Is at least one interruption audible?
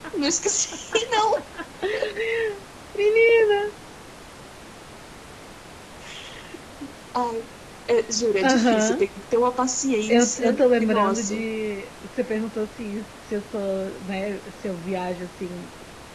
Yes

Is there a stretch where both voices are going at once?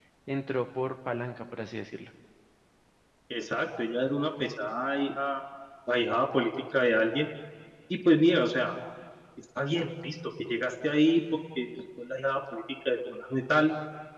No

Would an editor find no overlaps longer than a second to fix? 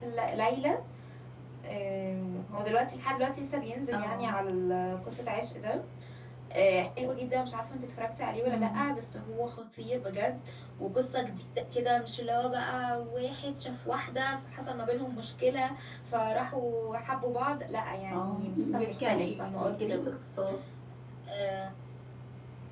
No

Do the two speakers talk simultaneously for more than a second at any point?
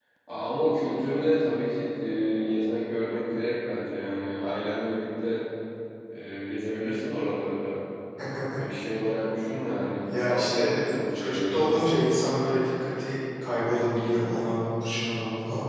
Yes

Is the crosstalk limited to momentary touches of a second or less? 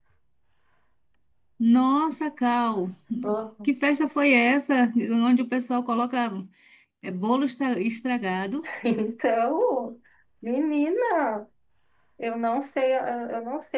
Yes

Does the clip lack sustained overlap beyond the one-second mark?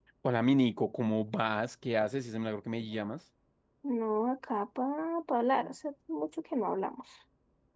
Yes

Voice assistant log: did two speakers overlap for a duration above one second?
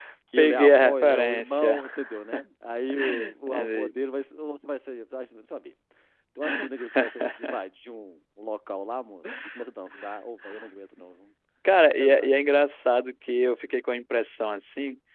Yes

